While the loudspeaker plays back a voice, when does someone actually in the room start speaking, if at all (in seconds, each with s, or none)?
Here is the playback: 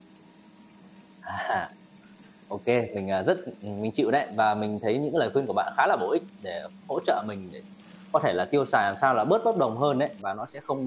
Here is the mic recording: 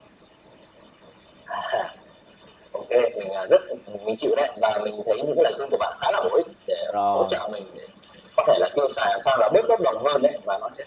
6.9 s